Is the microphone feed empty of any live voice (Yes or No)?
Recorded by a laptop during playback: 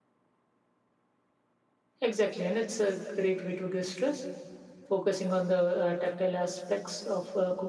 No